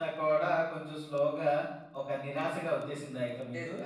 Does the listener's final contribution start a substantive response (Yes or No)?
Yes